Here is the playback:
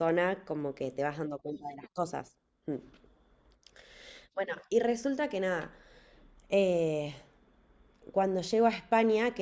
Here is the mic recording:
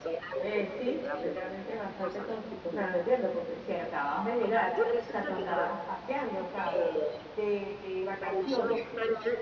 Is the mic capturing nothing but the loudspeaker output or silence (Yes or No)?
No